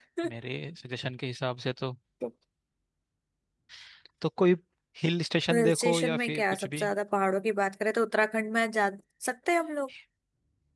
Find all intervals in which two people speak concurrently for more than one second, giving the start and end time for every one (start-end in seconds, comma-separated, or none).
5.5-6.9